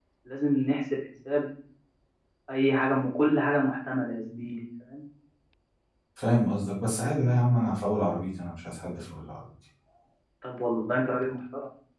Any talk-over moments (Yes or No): No